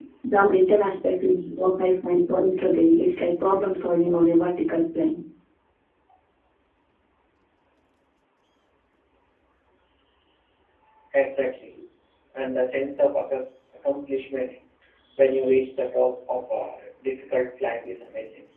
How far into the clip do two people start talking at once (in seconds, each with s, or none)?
none